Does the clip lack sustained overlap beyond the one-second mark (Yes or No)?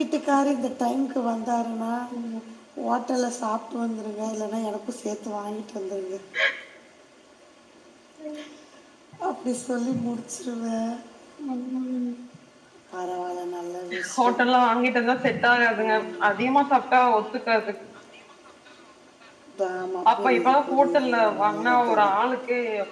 No